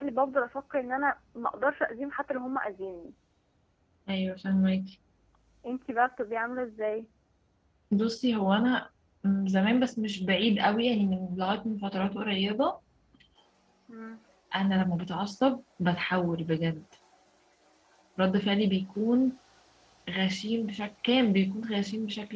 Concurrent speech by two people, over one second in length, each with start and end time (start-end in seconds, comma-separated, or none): none